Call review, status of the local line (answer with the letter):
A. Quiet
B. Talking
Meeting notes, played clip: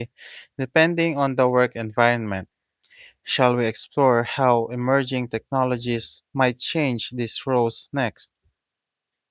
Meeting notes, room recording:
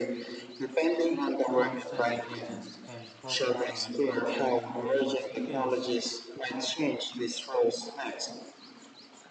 B